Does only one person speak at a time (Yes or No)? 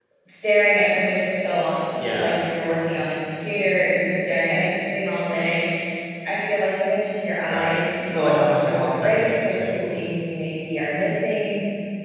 No